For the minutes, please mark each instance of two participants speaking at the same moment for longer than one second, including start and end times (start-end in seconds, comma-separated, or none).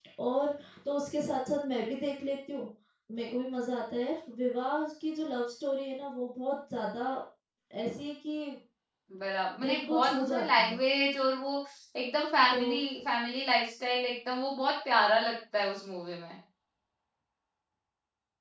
9.6-10.8